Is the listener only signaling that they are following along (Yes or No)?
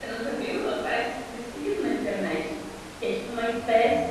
Yes